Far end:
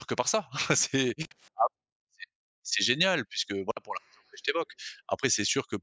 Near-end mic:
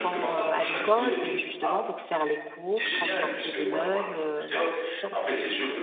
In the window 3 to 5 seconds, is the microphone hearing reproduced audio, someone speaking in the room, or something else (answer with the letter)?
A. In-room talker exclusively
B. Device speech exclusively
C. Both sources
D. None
C